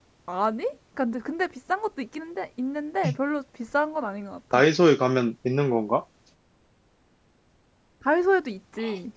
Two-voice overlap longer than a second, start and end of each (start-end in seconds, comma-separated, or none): none